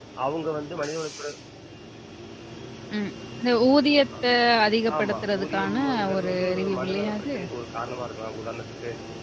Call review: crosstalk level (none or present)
present